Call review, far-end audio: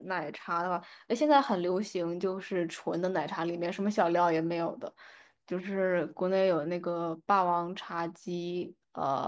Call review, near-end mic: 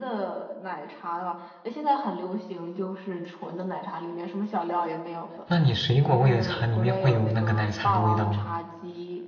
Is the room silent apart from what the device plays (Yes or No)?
No